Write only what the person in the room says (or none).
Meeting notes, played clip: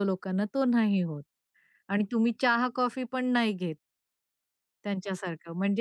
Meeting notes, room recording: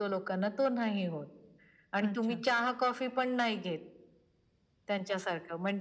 अच्छा.